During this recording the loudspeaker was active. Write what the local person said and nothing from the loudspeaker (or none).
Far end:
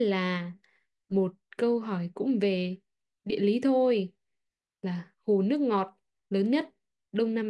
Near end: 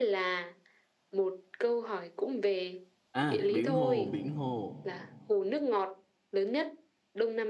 à biển hồ biển hồ